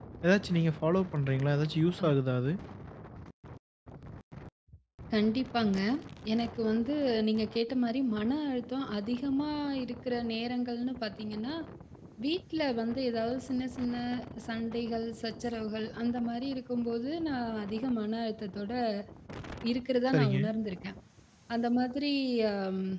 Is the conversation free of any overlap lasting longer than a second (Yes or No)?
Yes